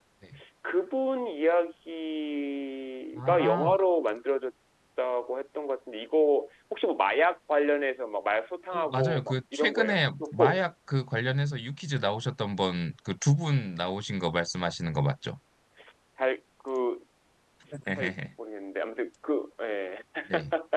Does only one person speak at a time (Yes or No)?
No